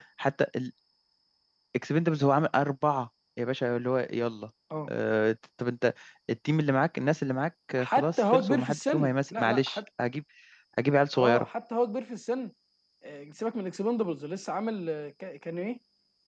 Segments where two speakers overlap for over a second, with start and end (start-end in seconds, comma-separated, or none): 7.8-9.8